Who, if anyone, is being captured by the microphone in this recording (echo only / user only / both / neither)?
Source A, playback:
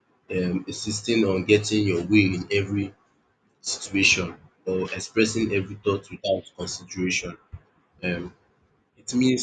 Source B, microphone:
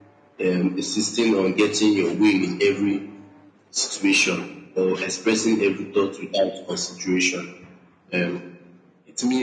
echo only